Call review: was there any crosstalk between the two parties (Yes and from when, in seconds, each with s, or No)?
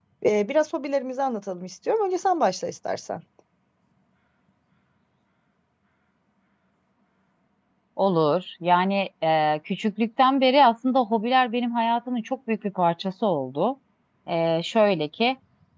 No